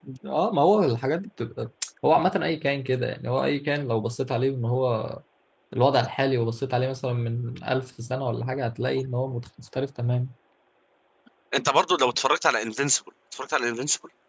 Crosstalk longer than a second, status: none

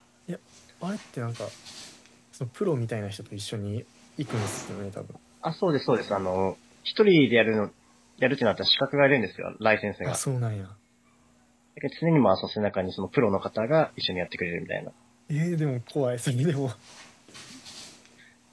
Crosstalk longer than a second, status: none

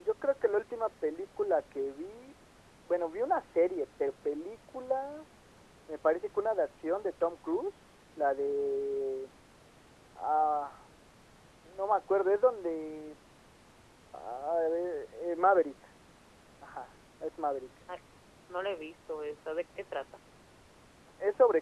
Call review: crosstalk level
none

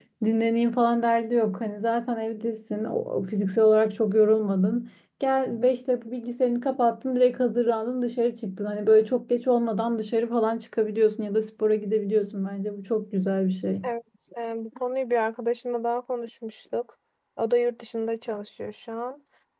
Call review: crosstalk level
none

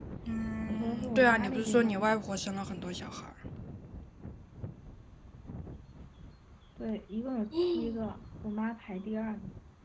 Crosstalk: present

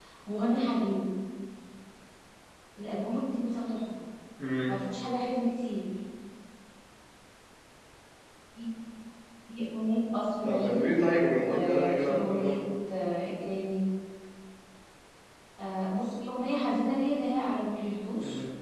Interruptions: present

